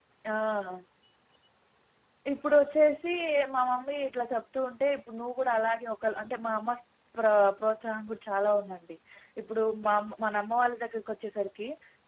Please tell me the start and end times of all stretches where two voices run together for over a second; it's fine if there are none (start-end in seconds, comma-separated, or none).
none